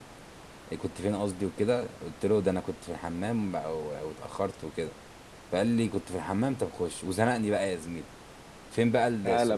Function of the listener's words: listening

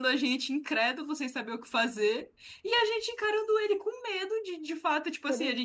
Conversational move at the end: listening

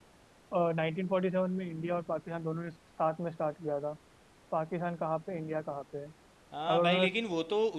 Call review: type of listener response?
taking over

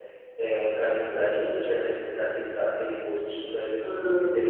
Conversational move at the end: taking over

